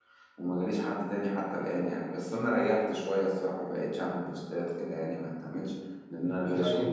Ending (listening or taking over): taking over